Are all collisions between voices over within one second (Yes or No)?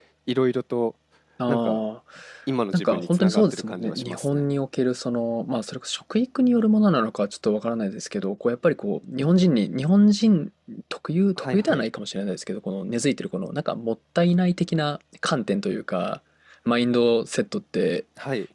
No